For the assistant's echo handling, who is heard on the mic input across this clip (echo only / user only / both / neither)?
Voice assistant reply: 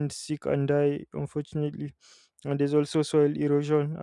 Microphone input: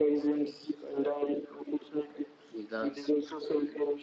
both